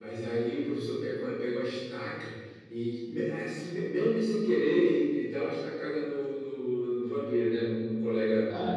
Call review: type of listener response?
listening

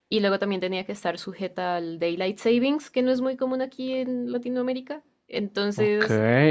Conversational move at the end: taking over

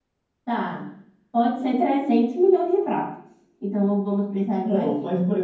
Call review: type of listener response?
taking over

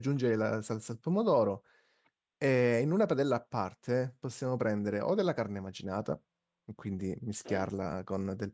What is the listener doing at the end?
listening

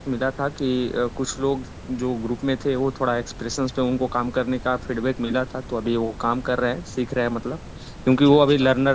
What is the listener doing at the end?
listening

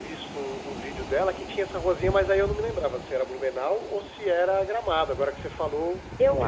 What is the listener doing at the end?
taking over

